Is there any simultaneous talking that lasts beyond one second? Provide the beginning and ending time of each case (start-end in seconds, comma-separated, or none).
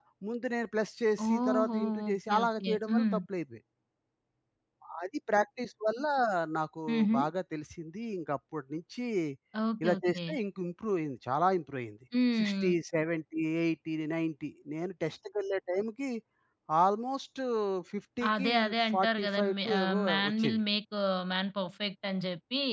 1.2-3.2, 19.0-20.6